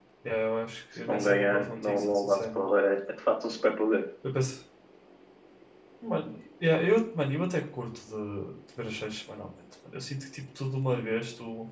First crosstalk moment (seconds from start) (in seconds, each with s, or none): 1.1 s